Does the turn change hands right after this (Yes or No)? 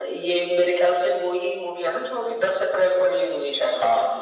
Yes